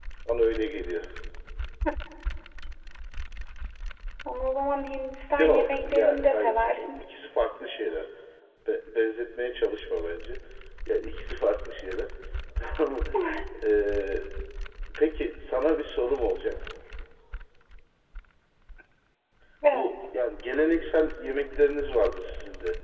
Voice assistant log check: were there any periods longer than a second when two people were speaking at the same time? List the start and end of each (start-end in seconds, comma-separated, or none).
5.3-7.0